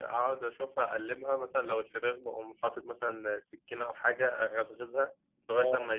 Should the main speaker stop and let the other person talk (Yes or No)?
No